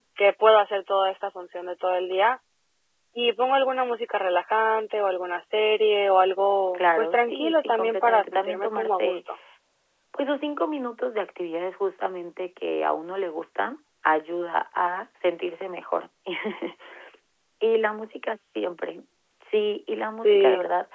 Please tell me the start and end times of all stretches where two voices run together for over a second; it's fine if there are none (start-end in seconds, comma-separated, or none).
6.7-9.2